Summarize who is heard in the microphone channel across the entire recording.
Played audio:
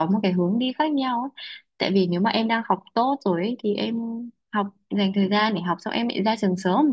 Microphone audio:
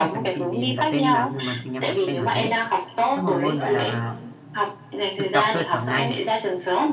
both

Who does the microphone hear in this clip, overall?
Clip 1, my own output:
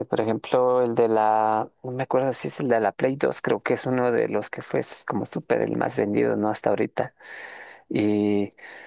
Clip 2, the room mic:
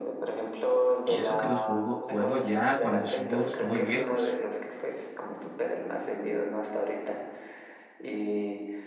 both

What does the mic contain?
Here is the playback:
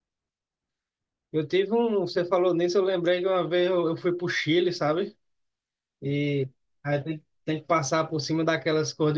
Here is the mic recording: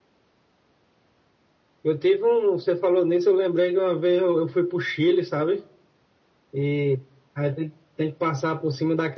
echo only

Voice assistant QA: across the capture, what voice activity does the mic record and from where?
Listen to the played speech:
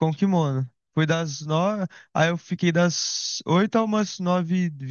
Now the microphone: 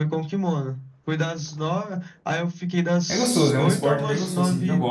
both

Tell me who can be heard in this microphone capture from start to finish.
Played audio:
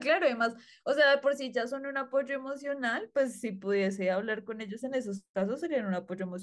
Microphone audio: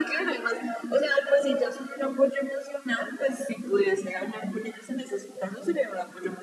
echo only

